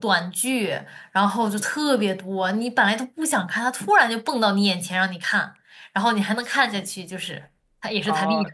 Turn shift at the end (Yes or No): Yes